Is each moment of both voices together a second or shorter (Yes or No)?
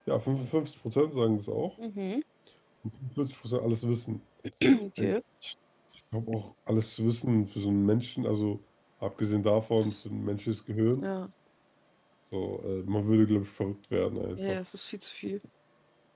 Yes